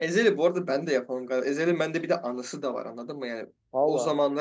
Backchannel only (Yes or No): Yes